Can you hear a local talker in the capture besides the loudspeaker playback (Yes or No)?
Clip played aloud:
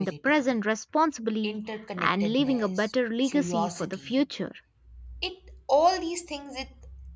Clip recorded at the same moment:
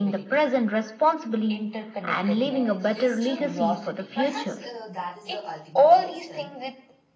Yes